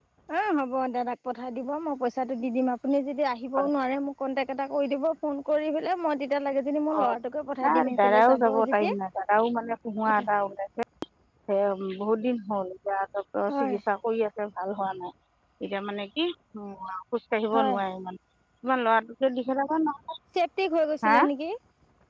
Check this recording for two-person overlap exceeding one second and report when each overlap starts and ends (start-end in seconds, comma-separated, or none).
7.6-8.9